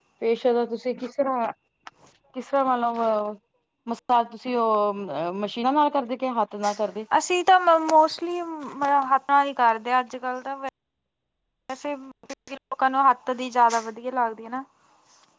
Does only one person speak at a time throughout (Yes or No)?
Yes